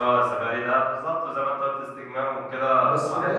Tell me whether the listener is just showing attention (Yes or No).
No